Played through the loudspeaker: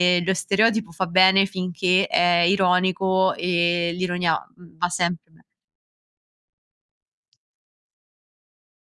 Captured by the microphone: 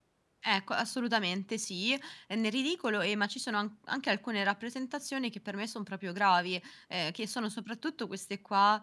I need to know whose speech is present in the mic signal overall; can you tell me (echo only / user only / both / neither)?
user only